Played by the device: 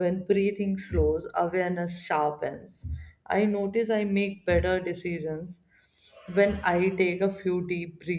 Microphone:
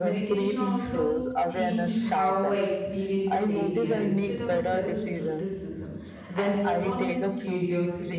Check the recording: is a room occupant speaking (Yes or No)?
Yes